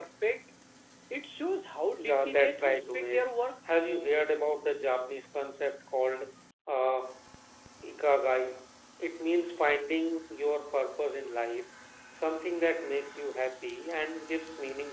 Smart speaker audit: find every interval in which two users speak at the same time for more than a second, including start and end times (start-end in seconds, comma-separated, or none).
2.0-3.5